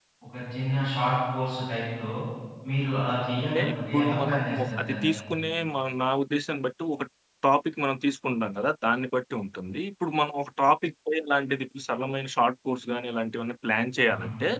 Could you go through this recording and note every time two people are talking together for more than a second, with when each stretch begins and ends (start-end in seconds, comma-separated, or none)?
3.4-5.2